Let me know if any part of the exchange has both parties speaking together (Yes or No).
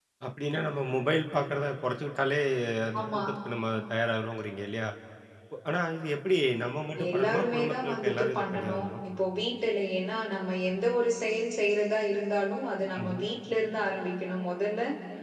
Yes